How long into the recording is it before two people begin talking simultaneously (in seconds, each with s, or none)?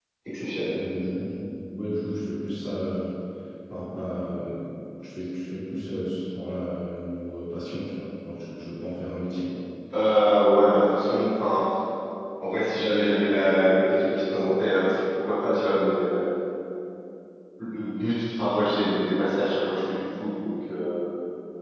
none